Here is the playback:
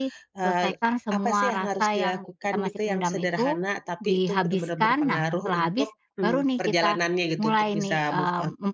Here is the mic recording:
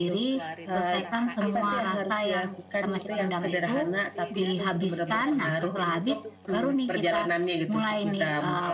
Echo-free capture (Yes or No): No